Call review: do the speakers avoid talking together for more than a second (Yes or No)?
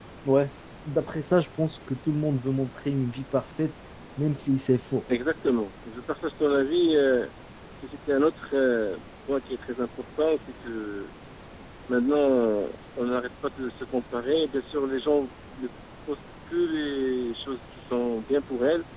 Yes